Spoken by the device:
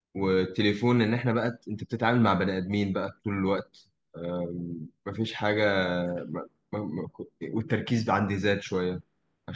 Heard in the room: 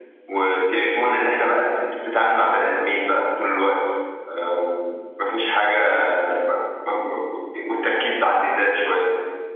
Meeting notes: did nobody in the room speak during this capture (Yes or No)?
Yes